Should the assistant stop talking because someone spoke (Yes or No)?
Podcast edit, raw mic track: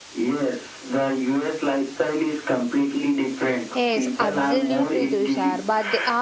Yes